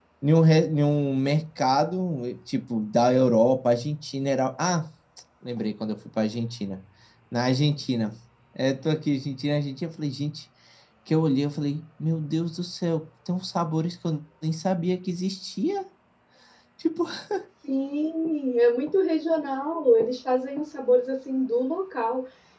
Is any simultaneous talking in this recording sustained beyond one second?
No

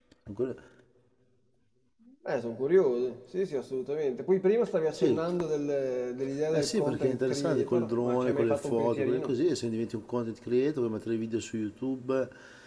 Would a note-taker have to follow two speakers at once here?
Yes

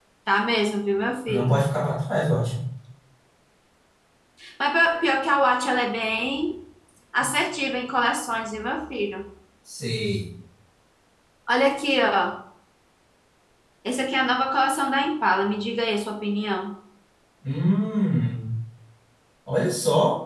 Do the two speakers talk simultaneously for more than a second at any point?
No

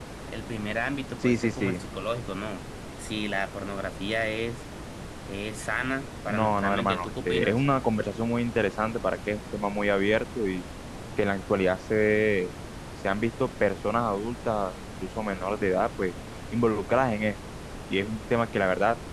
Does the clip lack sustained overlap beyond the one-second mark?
No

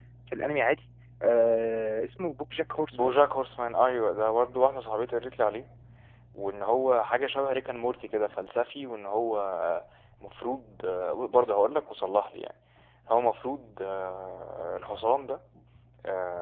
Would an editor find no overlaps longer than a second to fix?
Yes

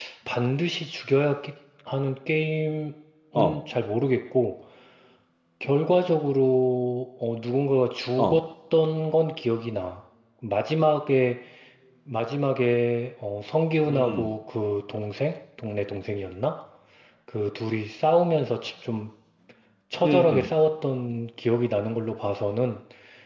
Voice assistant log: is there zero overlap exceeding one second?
Yes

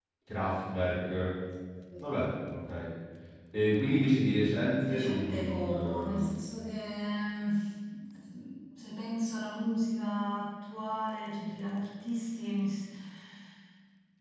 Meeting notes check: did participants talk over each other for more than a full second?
Yes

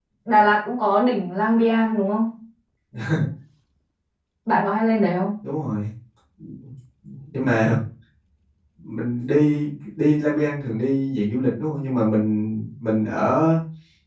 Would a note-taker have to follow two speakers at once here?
No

